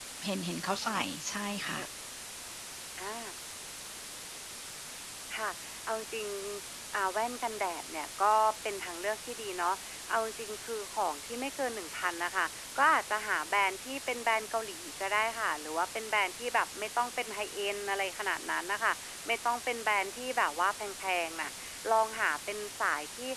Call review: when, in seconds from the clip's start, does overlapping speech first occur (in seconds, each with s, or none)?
none